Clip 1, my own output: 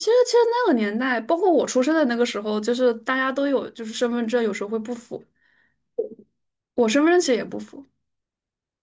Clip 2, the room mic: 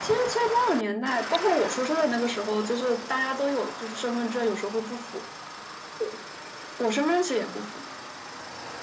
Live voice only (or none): none